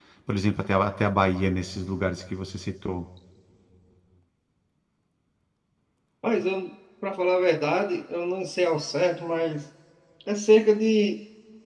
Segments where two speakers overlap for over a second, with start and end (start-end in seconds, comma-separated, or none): none